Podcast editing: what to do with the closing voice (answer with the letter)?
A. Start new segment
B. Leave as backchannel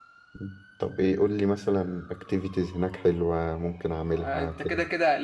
A